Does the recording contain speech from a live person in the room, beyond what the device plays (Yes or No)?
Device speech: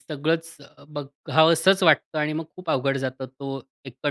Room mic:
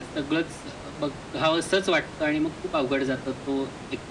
No